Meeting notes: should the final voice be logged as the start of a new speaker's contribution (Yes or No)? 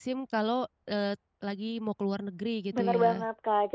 Yes